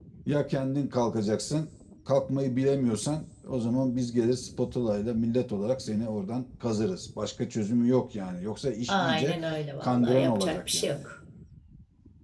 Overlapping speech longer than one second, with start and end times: 9.8-11.0

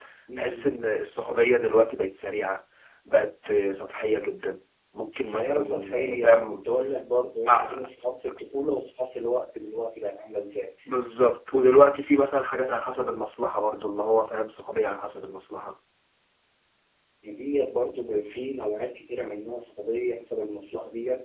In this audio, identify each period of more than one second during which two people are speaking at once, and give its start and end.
5.2-6.7

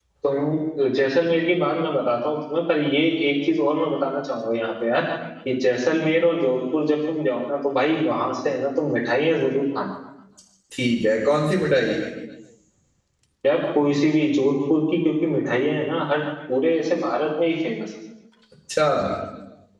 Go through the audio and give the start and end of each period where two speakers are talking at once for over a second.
none

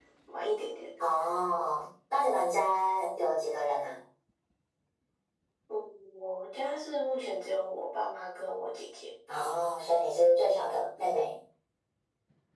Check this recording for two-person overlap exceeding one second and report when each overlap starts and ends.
none

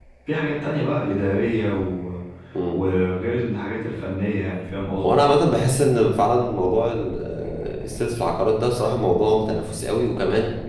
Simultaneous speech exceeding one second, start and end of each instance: none

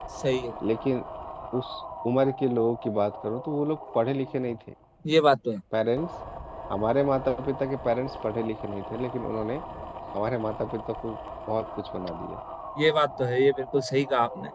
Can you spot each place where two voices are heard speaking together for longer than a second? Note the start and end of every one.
none

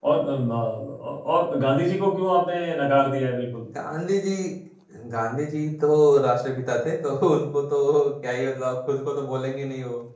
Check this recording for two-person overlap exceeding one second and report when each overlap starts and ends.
none

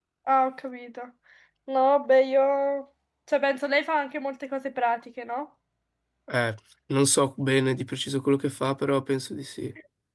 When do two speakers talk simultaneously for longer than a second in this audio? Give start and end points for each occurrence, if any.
none

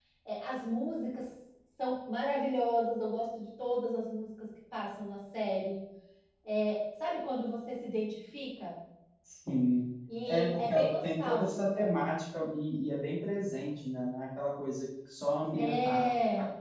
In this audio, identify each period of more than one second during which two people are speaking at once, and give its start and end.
10.3-11.9

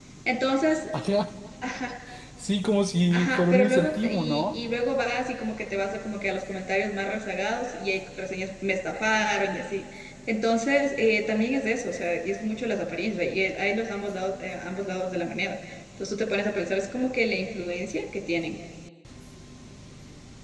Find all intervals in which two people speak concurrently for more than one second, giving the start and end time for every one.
3.1-4.5

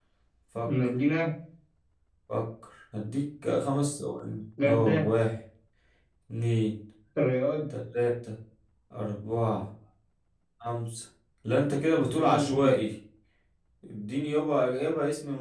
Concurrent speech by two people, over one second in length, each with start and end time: none

